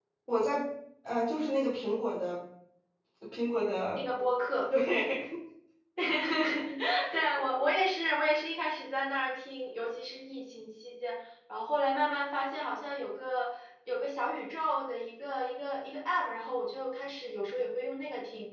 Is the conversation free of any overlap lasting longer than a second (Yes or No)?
Yes